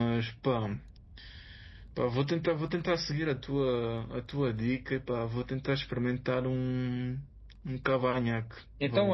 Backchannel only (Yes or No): No